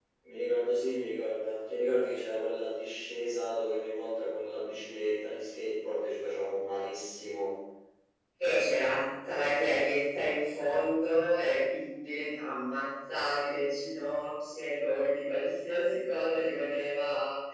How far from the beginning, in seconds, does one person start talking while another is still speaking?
none

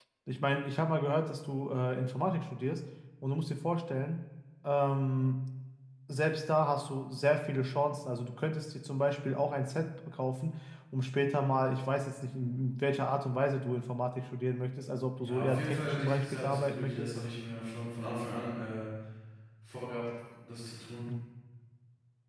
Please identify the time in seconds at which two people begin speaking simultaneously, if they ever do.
15 s

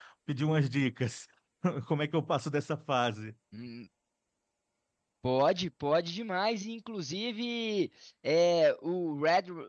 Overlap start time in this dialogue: none

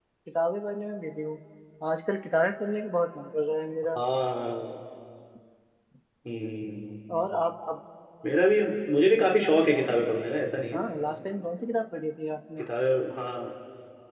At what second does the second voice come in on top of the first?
none

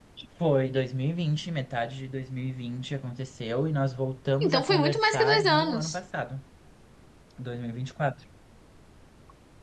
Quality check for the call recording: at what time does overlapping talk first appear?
4 s

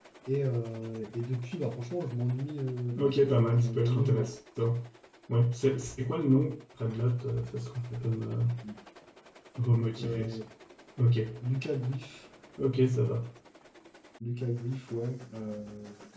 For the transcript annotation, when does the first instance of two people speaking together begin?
3 s

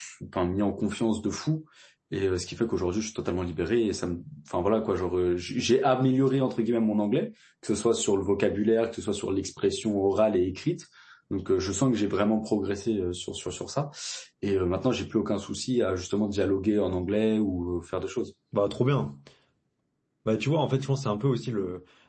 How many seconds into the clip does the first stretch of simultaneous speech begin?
none

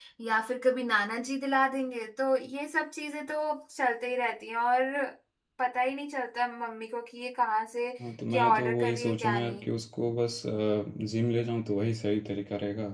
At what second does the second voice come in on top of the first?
8 s

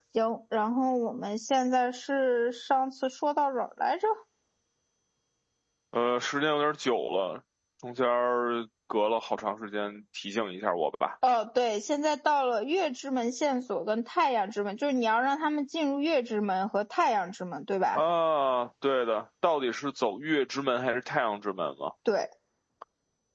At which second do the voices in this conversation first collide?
none

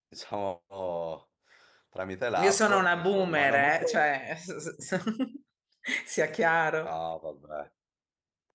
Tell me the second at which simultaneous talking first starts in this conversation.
2 s

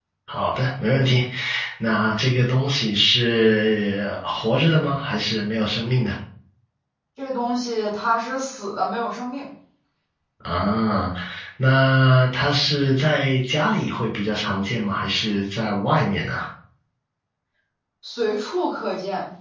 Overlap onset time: none

